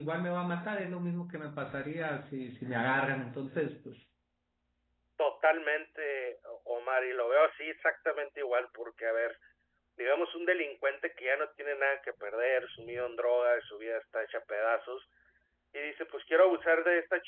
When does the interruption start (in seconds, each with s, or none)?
none